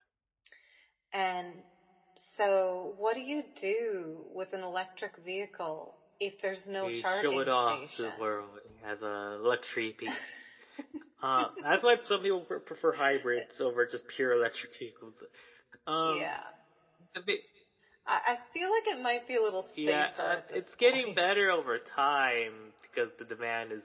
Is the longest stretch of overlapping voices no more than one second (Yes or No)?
No